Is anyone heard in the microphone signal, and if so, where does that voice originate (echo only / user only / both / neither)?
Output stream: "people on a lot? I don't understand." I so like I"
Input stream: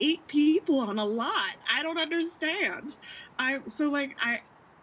echo only